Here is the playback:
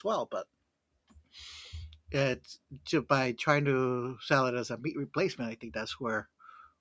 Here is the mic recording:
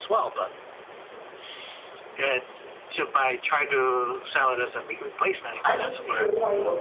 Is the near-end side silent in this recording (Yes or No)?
No